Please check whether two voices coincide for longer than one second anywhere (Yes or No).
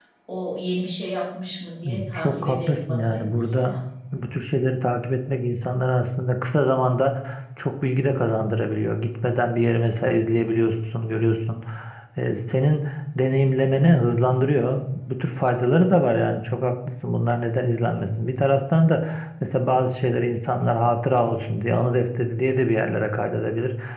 Yes